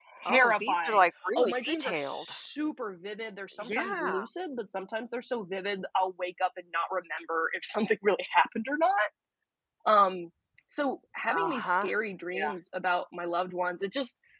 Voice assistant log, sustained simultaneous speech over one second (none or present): present